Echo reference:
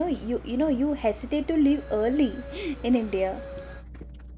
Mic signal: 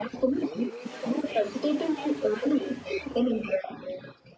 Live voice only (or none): none